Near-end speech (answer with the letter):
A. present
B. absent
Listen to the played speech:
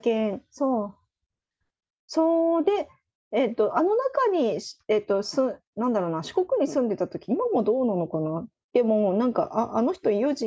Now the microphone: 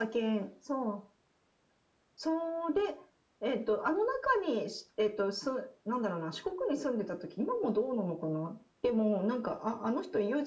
B